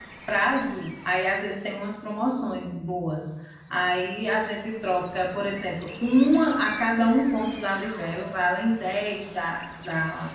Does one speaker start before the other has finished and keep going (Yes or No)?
No